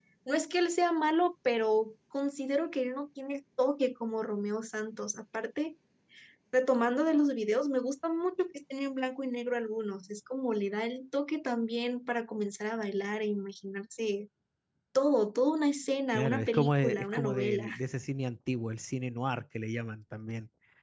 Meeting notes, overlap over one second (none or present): present